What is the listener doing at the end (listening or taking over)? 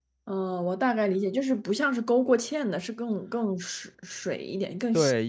taking over